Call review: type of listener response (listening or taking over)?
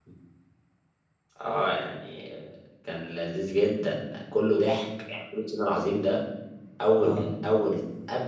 listening